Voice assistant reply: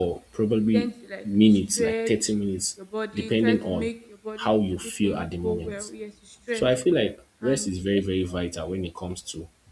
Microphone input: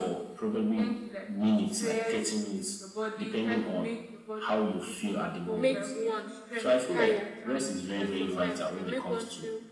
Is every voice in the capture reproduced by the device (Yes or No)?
No